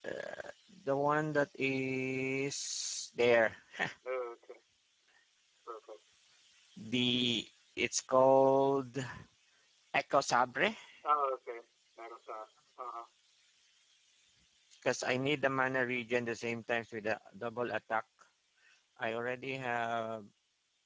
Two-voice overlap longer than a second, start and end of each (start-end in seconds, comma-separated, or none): none